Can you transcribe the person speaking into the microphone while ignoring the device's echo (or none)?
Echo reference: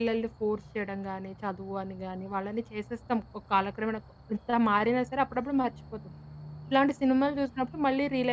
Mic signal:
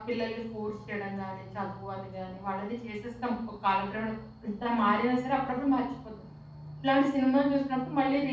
none